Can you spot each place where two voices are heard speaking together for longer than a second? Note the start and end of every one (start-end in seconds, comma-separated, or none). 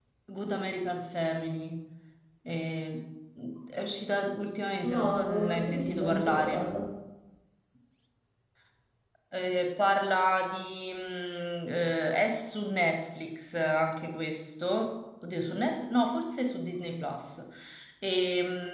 4.9-6.6